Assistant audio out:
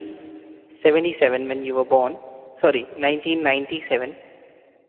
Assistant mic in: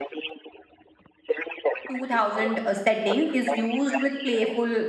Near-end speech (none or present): present